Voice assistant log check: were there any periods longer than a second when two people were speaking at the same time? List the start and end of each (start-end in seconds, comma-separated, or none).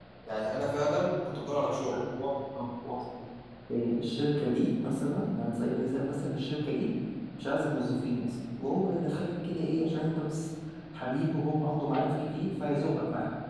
none